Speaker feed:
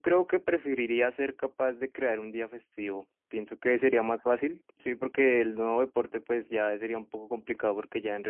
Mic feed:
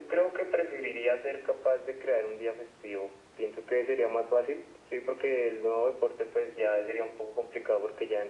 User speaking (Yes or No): No